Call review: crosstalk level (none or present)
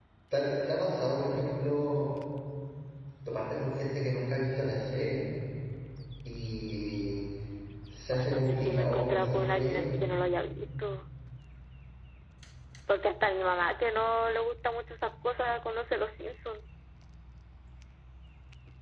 present